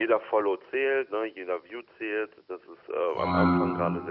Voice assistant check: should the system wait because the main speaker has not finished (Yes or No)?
Yes